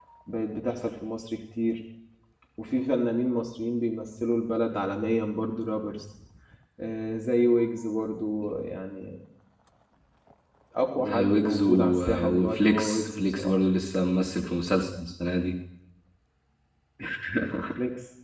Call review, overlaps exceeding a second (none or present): present